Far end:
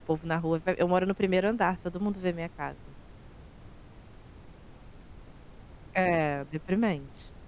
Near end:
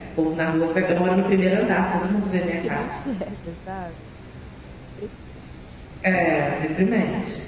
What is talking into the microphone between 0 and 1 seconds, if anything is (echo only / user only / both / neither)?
echo only